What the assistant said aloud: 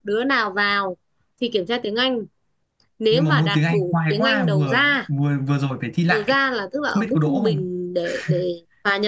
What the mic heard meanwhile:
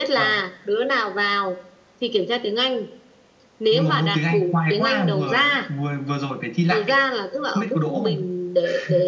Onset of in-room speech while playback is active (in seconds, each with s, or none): none